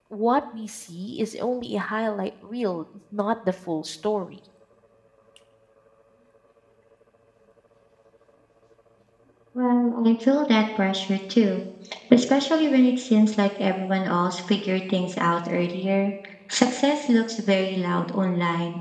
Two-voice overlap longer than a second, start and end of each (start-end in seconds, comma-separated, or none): none